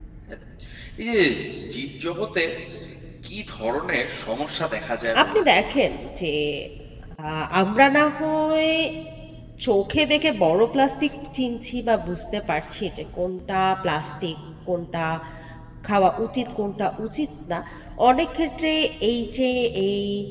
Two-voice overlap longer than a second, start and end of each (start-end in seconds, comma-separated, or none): none